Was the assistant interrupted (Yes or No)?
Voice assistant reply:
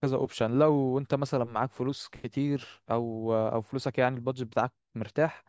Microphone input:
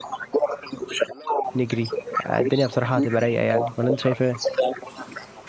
Yes